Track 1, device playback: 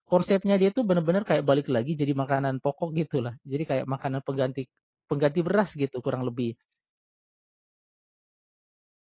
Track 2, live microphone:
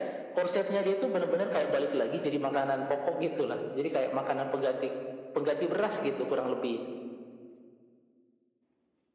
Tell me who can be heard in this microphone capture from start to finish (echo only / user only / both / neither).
echo only